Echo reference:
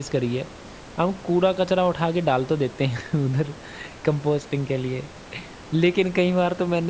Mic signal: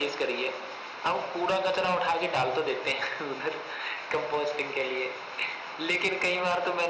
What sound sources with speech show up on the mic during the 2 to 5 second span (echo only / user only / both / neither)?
echo only